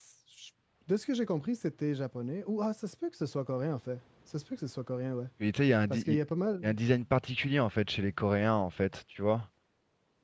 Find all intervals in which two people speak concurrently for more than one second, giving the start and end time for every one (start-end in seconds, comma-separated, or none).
none